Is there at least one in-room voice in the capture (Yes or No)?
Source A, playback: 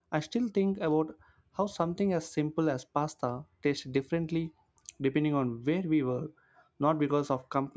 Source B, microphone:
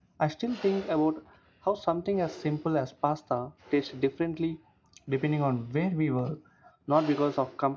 No